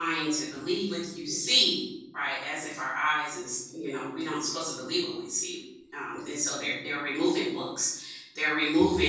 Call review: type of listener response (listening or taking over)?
listening